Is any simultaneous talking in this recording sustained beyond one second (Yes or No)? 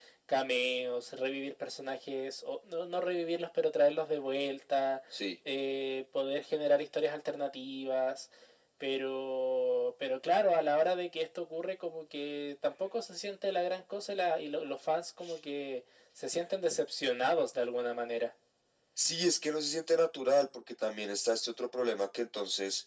No